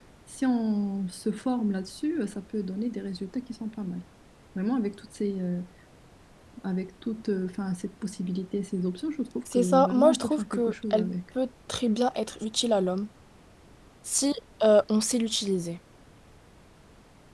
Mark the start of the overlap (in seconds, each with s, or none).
9.5 s